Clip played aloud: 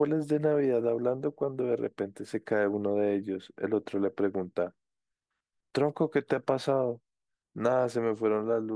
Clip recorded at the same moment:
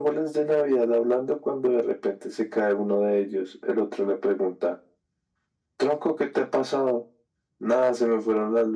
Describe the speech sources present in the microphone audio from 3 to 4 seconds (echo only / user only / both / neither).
echo only